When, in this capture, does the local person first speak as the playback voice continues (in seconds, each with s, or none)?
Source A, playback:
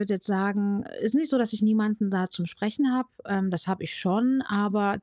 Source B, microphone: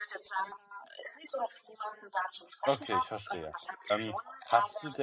2.6 s